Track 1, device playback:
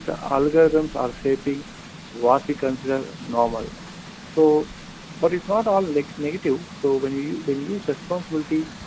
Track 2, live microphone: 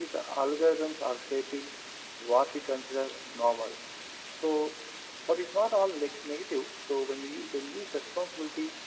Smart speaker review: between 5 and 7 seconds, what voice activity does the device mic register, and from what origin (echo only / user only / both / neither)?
echo only